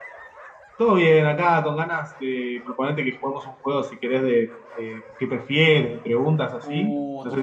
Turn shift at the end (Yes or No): Yes